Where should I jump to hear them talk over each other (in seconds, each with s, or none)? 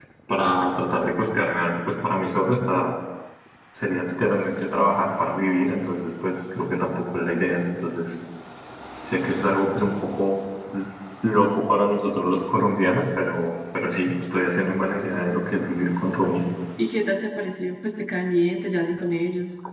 none